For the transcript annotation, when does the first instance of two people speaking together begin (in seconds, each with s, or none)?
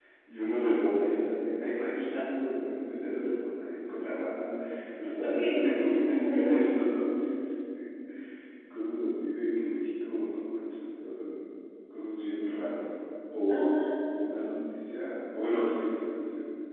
5.2 s